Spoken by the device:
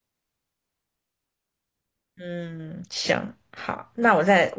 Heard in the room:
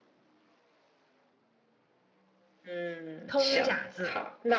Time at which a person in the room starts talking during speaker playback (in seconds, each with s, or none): 3.2 s